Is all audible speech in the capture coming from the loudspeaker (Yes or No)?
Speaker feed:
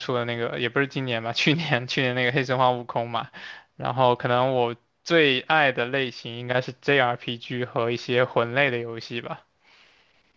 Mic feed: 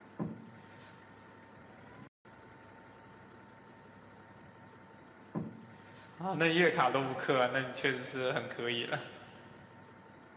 No